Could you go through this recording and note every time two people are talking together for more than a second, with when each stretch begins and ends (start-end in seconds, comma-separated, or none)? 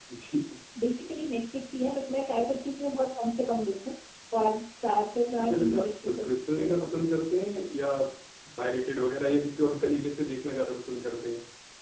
5.4-7.0